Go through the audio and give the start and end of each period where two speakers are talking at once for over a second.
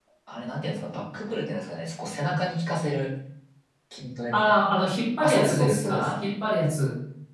4.3-6.2

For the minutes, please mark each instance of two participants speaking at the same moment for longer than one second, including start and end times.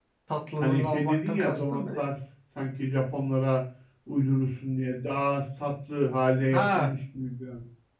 0.6-1.8

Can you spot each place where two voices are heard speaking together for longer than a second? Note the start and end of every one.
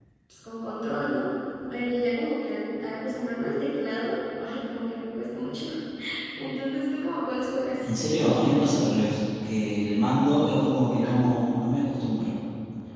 none

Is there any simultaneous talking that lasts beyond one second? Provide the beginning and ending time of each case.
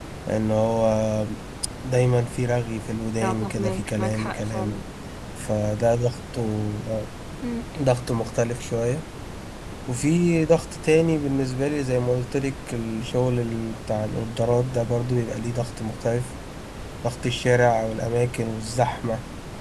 3.2-4.8

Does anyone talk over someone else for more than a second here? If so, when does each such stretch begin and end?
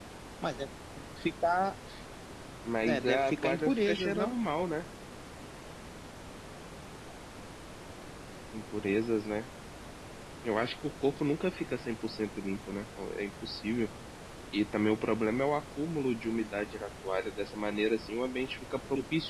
2.8-4.4

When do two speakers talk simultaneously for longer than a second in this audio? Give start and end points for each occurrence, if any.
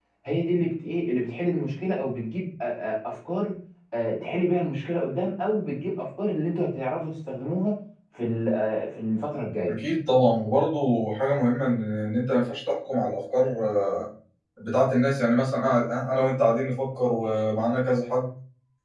none

